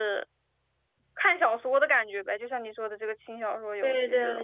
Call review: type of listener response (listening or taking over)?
taking over